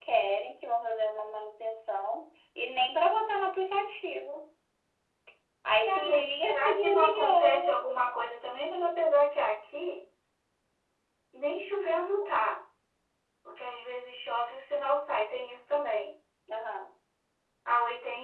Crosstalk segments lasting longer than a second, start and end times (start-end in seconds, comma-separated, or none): 5.9-7.7